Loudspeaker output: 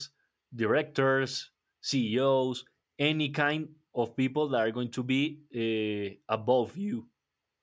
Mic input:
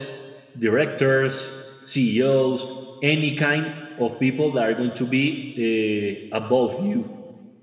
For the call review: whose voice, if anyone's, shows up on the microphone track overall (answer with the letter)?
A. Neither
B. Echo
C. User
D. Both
B